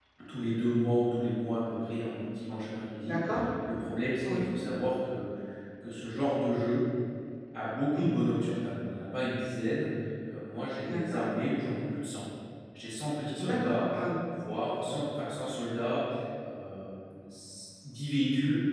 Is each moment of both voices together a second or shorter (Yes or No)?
Yes